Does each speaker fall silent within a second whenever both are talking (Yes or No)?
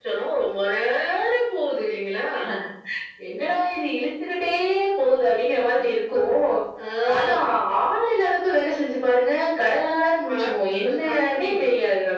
No